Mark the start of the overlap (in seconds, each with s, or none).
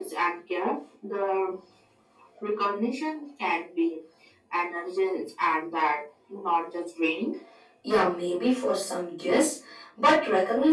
none